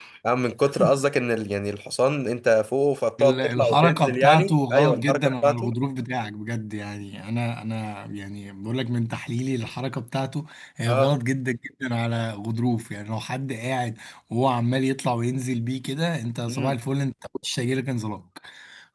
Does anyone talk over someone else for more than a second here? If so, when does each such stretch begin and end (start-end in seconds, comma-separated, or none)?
3.2-5.7